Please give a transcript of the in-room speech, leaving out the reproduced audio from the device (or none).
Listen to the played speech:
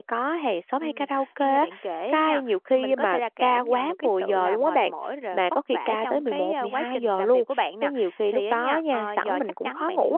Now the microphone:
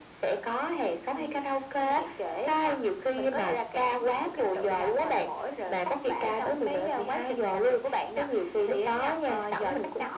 none